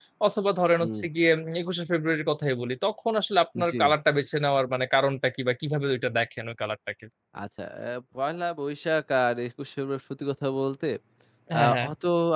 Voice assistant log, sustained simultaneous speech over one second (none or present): none